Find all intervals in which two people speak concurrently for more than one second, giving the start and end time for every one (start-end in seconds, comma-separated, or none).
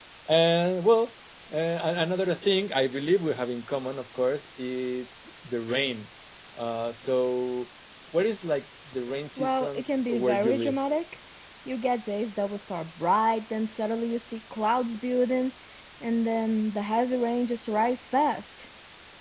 9.4-10.8